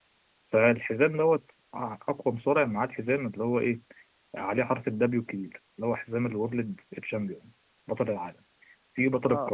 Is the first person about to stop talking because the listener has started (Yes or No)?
No